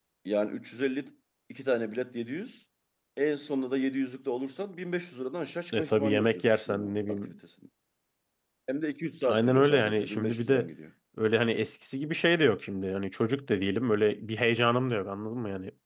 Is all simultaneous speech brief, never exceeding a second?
No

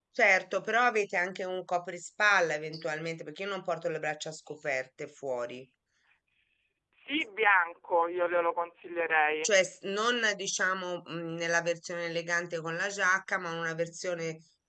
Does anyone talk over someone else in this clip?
No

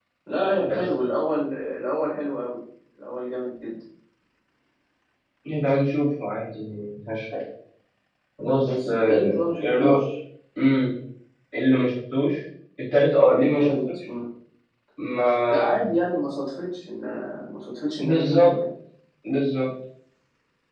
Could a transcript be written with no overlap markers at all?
No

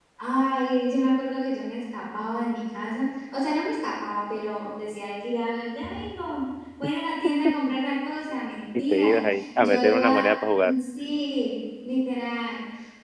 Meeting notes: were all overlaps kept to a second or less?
No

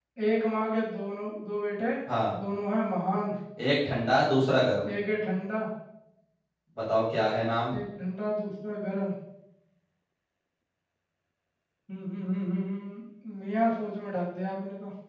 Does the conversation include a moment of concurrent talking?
No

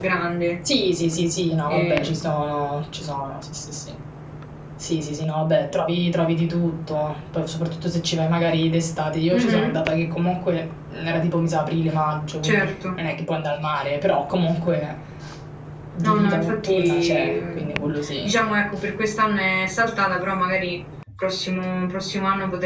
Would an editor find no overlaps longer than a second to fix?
No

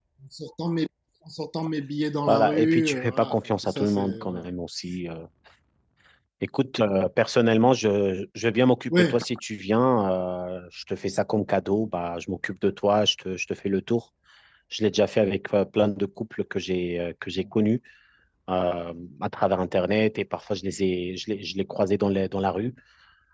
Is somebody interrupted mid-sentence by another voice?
Yes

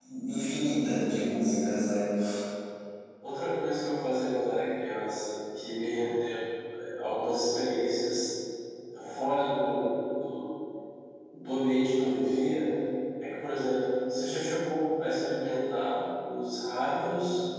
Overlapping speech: No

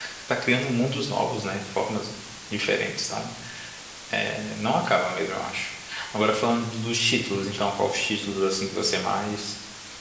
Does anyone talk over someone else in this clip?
No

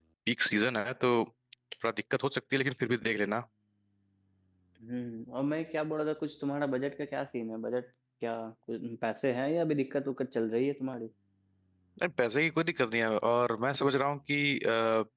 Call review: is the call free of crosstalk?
Yes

